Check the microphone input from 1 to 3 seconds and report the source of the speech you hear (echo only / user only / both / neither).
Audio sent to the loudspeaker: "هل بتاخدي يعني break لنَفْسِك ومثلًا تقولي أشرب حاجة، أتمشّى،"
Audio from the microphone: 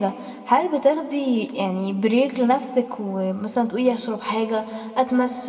echo only